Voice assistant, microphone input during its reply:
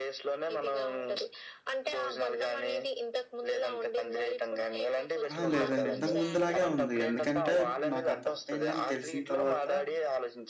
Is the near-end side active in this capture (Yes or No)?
Yes